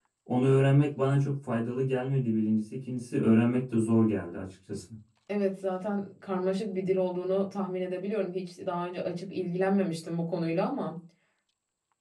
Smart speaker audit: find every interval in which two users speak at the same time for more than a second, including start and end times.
none

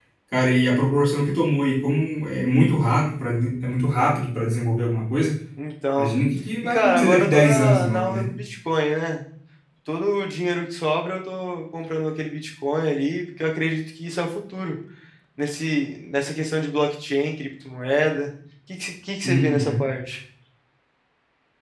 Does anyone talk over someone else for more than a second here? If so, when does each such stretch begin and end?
6.6-8.3

